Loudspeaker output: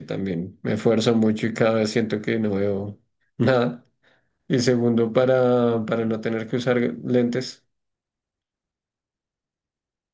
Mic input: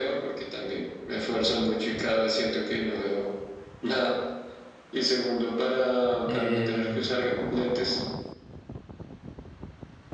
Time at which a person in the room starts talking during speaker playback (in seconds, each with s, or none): 6.2 s